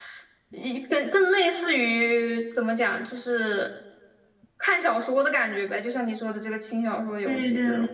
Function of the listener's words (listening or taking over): taking over